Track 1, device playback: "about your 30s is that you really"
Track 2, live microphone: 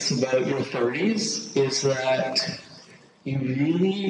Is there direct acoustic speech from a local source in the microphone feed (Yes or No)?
No